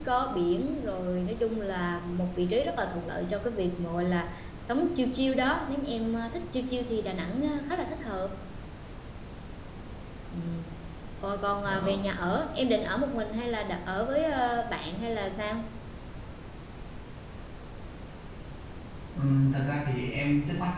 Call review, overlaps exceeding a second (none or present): none